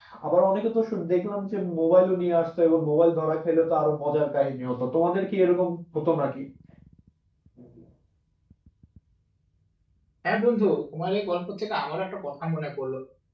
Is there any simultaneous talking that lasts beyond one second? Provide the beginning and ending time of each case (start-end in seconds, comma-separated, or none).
none